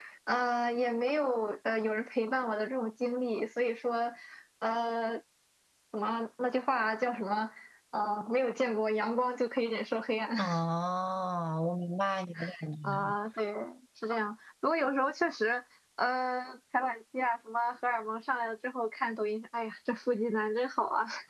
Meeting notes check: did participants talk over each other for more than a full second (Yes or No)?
No